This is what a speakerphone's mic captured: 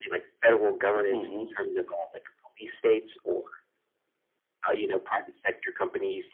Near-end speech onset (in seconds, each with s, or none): 1.1 s